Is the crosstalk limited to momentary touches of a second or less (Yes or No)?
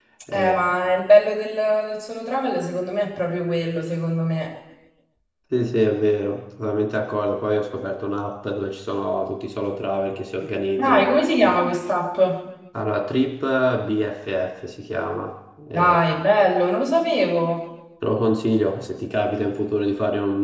Yes